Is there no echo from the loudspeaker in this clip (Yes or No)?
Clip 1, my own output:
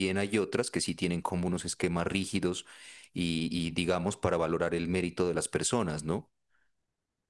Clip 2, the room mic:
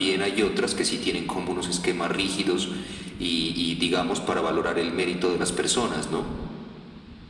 No